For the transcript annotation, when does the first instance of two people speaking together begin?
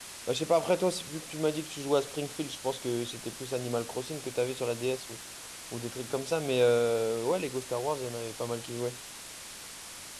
none

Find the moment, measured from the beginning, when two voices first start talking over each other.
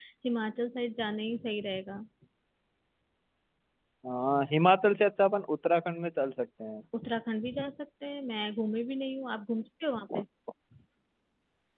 none

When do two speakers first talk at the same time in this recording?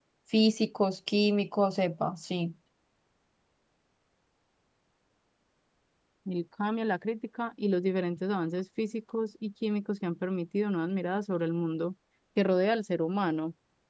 none

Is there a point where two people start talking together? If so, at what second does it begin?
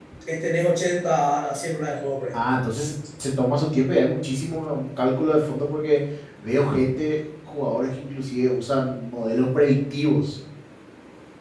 none

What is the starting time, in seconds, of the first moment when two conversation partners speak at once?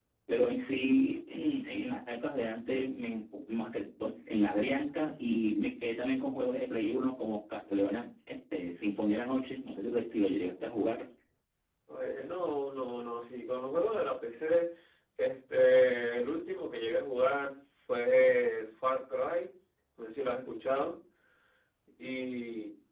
none

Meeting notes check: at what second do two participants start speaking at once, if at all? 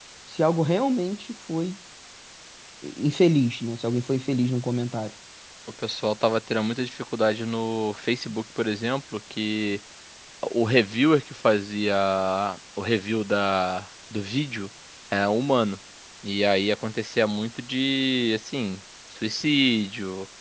none

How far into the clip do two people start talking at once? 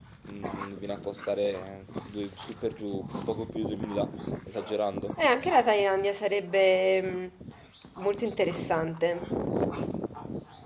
none

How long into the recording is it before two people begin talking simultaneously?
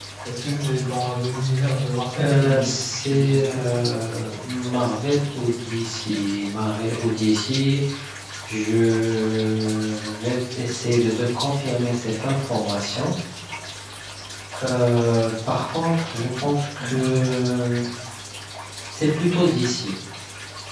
2 s

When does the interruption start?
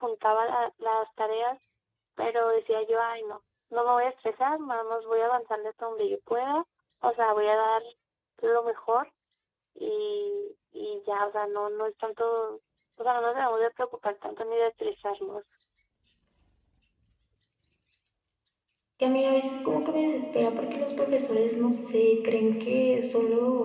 none

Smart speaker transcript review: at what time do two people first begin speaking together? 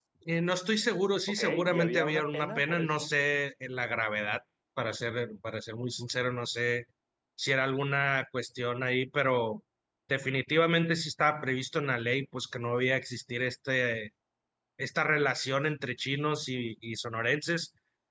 1 s

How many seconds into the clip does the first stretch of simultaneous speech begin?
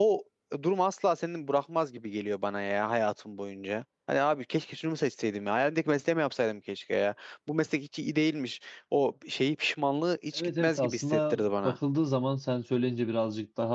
10 s

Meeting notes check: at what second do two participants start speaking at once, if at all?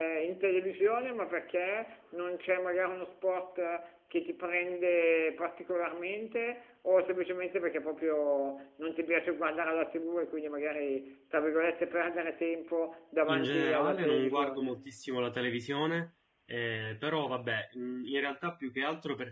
13 s

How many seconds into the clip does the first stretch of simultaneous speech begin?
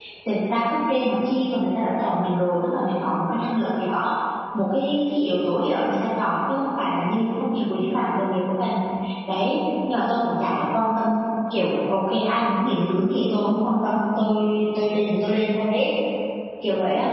none

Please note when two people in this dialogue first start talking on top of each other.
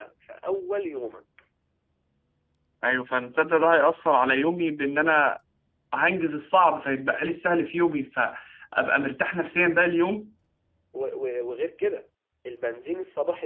none

